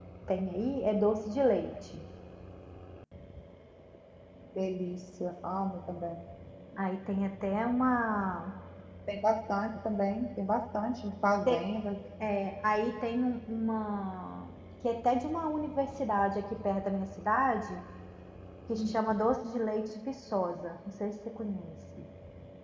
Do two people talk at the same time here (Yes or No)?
No